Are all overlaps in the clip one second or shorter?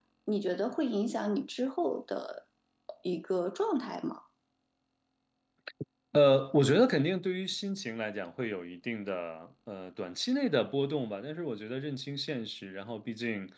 Yes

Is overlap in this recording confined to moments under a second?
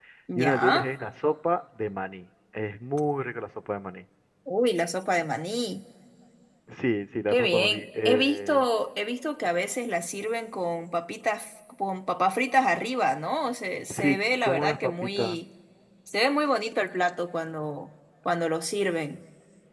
No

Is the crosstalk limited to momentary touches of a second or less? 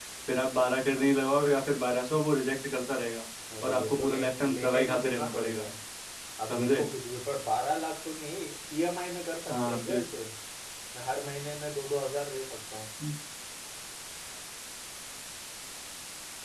No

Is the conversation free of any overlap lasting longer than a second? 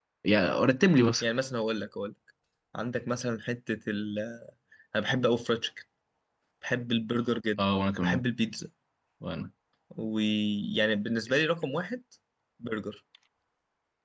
Yes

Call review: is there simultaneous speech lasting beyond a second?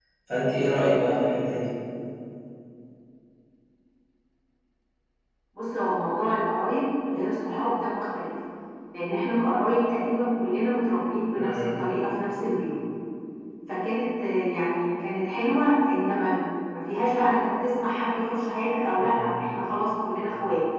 No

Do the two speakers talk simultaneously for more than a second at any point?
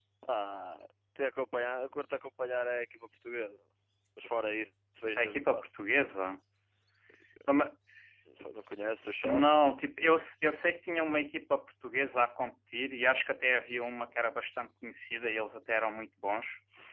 No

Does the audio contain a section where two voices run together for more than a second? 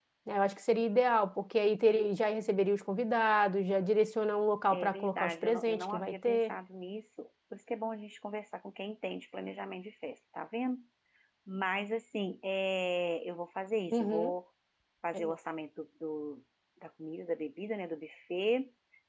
Yes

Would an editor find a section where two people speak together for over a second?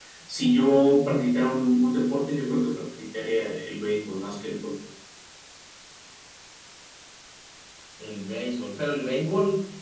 No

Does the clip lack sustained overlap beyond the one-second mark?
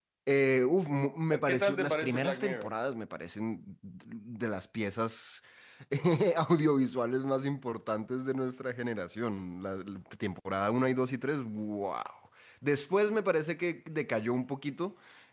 No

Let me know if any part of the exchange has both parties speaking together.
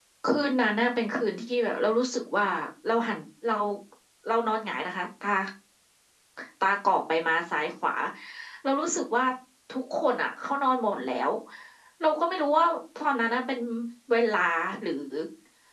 No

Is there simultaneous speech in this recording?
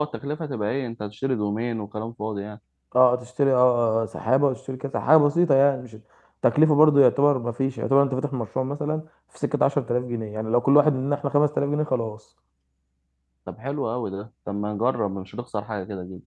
No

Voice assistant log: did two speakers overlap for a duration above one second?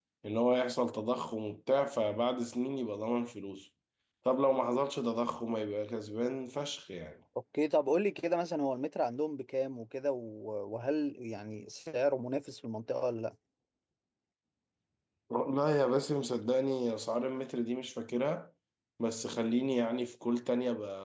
No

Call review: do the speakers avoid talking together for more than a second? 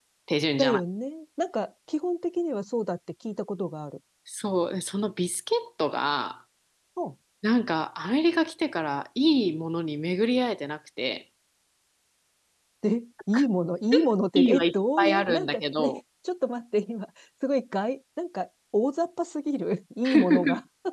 No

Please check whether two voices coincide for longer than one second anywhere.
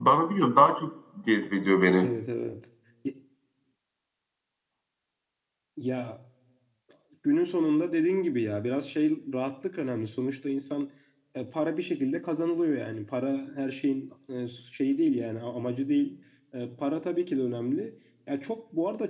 No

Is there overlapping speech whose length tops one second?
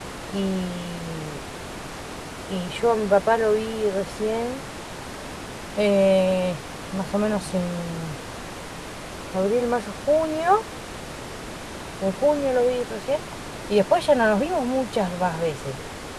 No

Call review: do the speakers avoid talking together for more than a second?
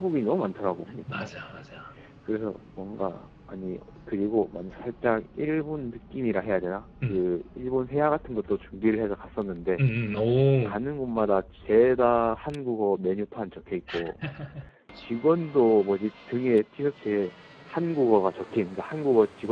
Yes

